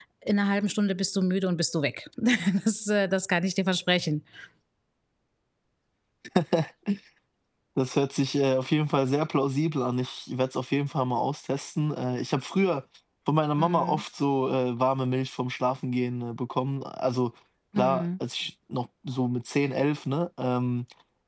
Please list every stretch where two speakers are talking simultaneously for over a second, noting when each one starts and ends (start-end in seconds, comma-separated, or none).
none